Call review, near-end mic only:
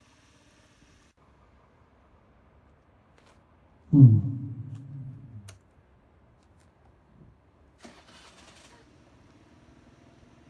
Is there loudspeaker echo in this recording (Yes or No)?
No